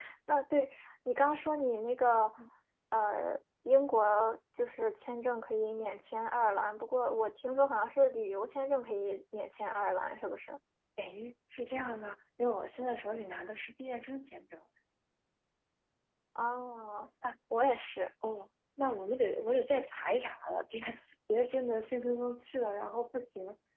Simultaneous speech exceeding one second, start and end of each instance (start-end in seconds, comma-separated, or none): none